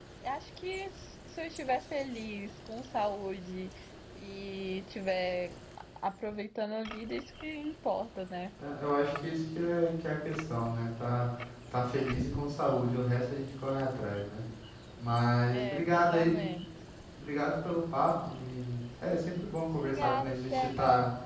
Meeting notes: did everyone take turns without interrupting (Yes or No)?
No